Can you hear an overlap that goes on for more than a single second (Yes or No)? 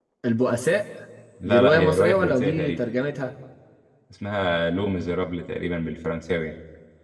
Yes